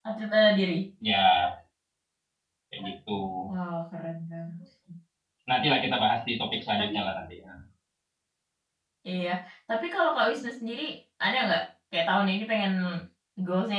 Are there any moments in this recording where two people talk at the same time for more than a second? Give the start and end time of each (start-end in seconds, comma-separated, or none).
none